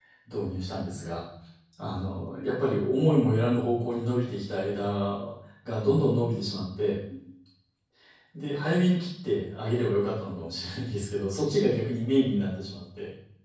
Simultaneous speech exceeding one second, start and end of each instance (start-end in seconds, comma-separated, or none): none